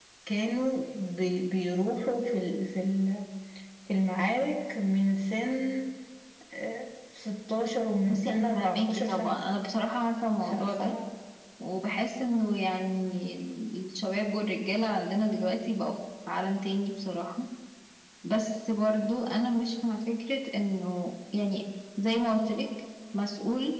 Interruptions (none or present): present